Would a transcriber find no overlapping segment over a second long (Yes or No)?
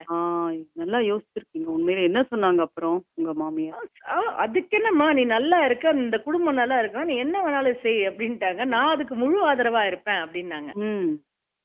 Yes